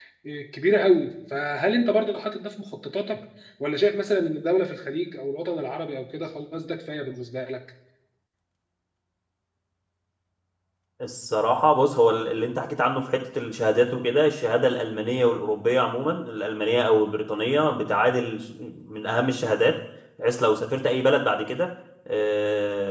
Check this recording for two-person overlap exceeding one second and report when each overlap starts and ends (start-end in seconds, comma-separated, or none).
none